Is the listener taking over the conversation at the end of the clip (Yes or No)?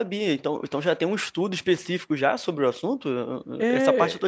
Yes